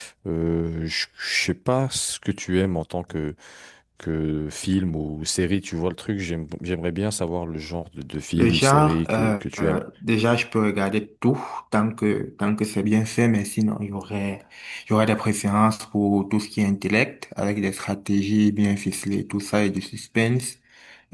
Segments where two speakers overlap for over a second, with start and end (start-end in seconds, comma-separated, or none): 8.4-9.8